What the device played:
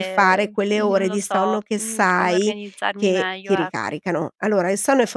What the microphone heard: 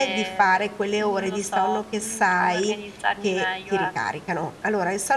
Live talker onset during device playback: none

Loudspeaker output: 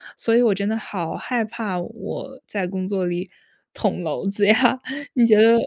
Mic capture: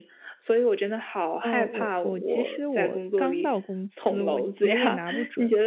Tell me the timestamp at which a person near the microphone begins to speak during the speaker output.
1 s

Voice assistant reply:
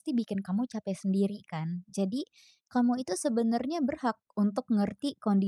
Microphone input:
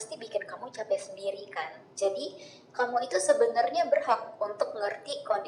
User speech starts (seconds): none

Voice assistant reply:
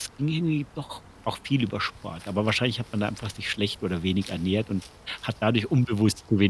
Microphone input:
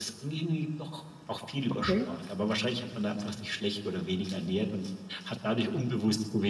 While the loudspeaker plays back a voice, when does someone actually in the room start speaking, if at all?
2 s

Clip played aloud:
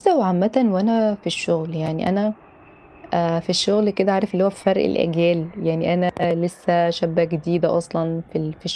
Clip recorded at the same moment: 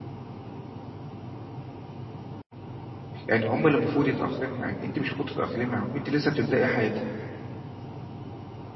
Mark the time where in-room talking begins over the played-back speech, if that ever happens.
3 s

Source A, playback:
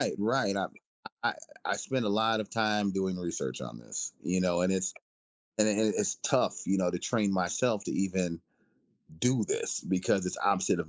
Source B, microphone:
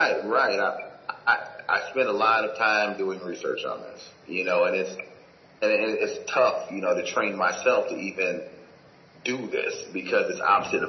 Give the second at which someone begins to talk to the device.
none

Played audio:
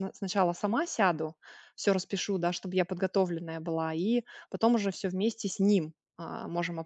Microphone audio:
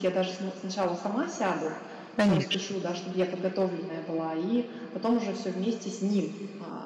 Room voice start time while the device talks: 2 s

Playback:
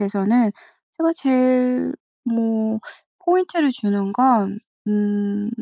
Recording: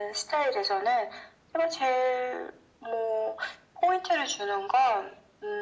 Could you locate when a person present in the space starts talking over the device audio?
none

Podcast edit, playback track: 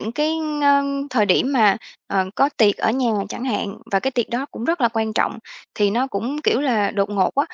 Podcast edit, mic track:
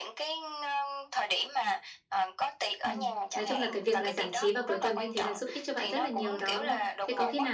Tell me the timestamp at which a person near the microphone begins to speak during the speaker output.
3 s

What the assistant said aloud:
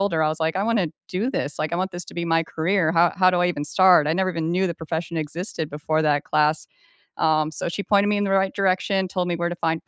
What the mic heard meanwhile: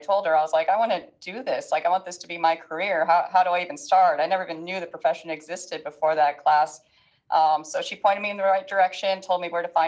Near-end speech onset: none

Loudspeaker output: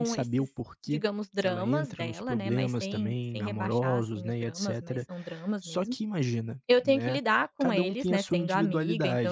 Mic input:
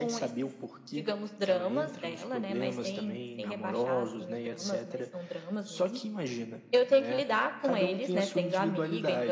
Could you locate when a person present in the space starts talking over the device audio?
none

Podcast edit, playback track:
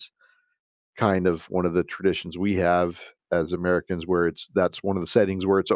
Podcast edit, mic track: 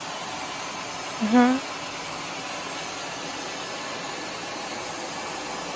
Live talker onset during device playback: 1 s

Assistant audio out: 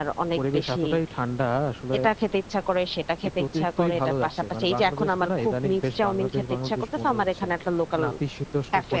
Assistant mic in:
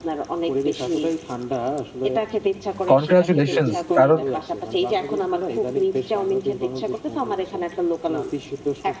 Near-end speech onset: 3 s

